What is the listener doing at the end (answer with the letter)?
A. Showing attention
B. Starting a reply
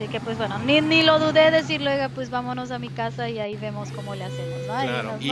B